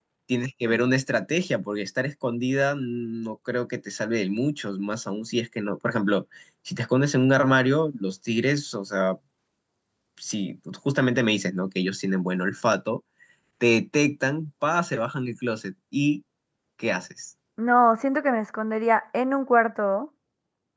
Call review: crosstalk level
none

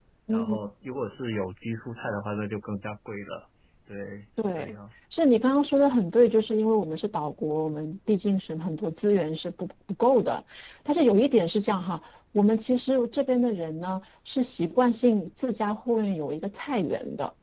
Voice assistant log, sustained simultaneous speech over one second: none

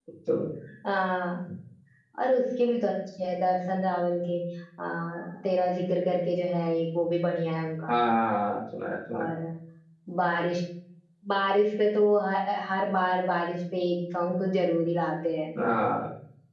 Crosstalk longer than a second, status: none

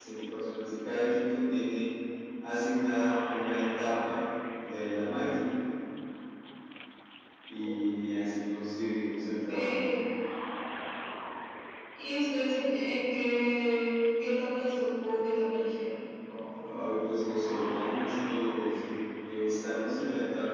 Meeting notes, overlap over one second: none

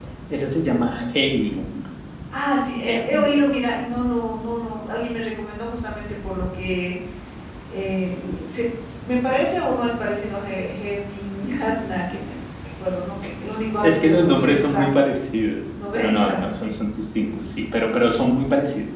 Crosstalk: present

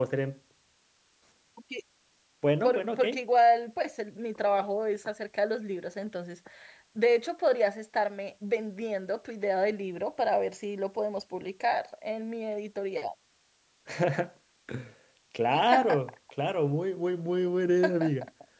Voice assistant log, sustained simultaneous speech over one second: none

